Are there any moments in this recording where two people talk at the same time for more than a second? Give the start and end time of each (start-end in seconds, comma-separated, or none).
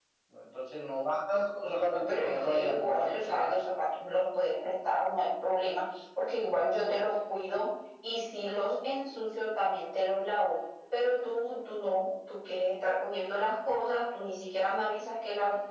1.6-3.6